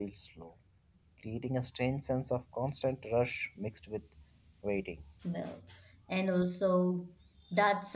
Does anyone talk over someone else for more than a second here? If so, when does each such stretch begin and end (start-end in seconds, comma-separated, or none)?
none